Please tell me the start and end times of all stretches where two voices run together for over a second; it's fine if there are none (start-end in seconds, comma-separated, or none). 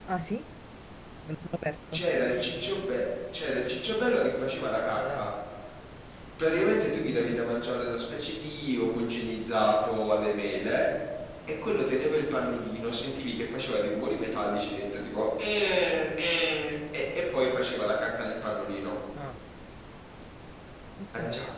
none